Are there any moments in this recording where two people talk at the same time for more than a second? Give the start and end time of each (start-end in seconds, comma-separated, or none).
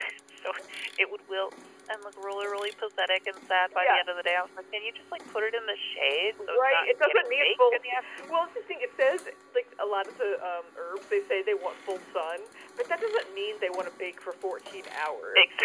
6.4-8.3